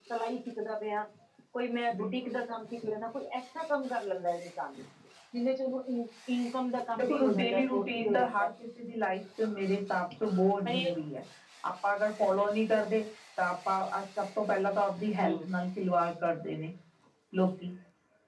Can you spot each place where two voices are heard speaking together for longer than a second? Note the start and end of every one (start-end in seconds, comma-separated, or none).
7.0-8.5